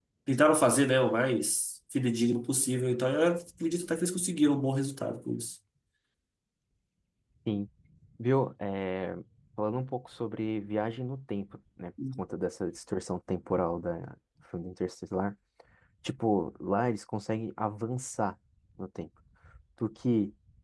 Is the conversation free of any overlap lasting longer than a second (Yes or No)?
Yes